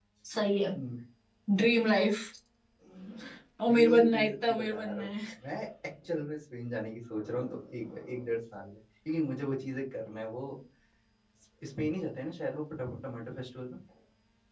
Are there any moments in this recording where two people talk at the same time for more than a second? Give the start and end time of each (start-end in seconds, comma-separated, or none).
3.7-5.1